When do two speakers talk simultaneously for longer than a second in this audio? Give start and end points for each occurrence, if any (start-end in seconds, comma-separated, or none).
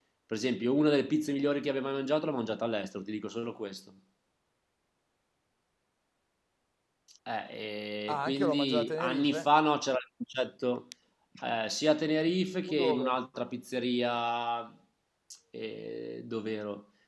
8.1-9.5